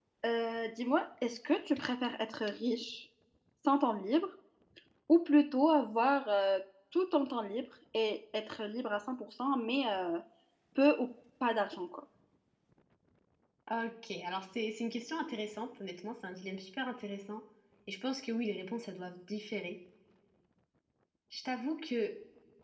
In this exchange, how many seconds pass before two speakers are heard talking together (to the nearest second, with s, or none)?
none